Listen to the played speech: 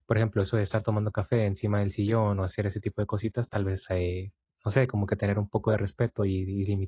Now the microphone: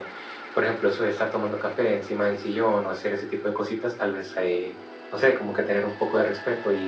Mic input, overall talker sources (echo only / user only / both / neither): echo only